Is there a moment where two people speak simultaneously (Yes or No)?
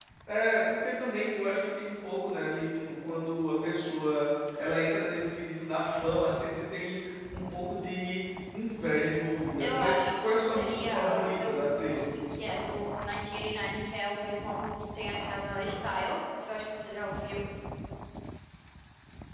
Yes